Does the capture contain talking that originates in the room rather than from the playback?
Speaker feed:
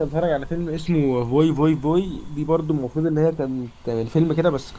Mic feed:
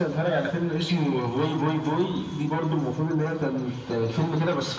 No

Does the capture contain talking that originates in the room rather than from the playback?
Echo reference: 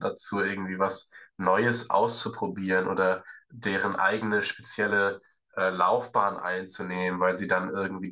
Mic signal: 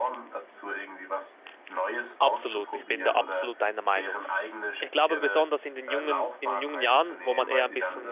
Yes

